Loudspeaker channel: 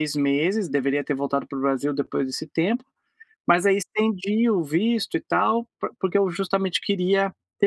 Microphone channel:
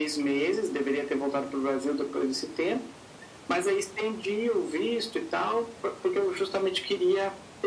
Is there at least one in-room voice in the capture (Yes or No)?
No